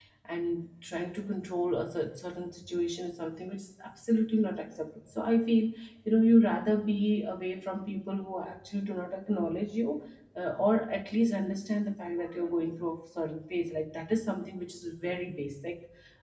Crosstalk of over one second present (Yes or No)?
No